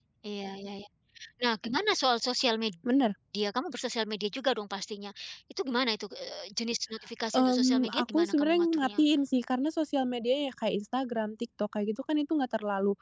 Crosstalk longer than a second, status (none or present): present